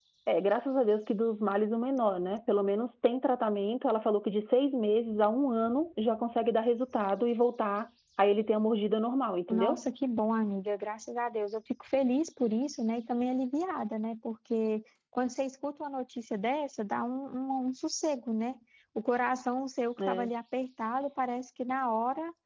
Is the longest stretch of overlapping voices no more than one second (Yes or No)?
Yes